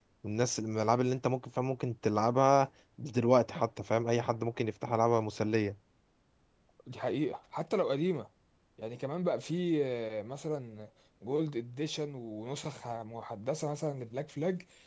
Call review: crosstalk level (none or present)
none